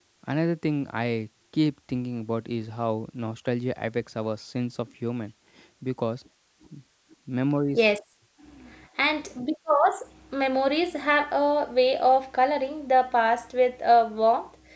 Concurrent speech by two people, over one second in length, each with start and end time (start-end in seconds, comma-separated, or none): none